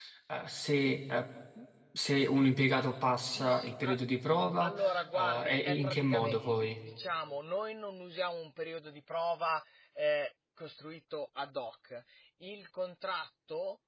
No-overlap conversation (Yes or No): No